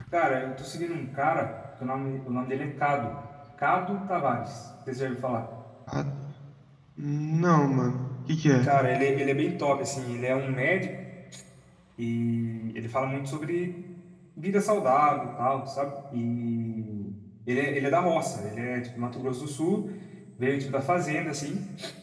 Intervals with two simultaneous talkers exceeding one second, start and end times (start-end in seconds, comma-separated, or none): none